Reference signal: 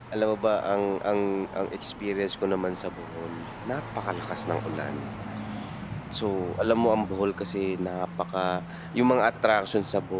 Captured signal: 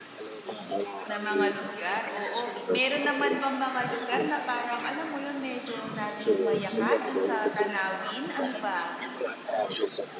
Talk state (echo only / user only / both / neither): both